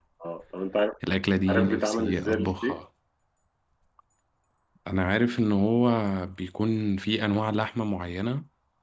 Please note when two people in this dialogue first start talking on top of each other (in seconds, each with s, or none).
1.5 s